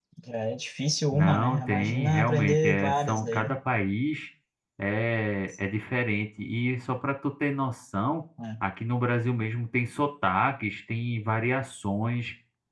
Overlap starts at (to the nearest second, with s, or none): 1 s